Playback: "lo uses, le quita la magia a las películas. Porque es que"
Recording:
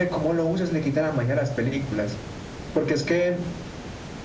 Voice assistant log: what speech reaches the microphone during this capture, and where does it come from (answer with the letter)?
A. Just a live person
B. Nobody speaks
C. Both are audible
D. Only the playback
D